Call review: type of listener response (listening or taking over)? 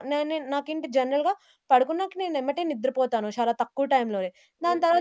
taking over